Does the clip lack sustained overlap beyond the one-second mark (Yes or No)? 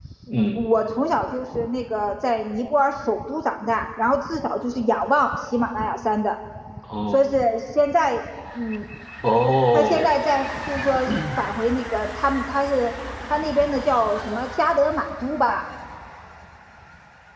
Yes